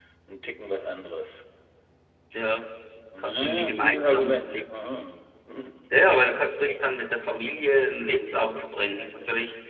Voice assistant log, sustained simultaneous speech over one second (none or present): present